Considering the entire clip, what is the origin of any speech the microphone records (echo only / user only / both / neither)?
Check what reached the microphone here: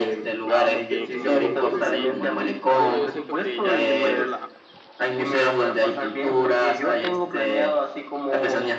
both